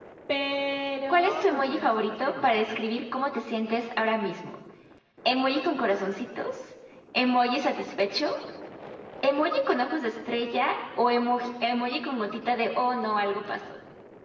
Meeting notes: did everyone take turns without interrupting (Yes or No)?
No